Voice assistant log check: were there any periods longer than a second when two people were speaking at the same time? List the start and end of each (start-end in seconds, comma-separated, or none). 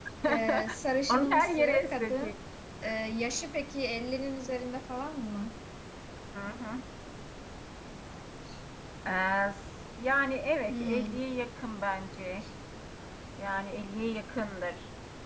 1.1-2.4